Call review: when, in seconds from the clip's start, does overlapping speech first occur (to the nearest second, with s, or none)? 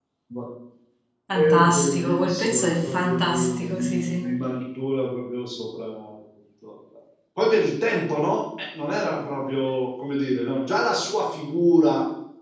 1 s